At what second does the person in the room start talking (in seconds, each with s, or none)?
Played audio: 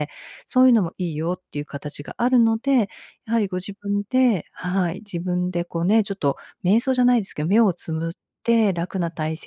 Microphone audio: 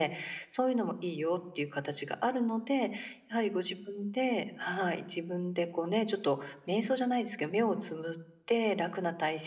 none